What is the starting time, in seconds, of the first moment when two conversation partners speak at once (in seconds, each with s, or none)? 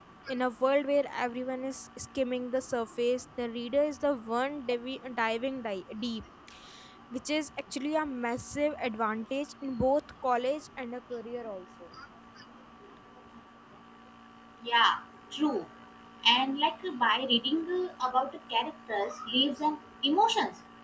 none